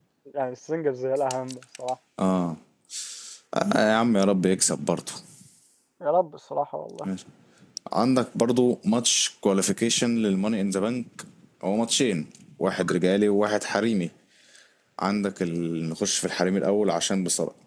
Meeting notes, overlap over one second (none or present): none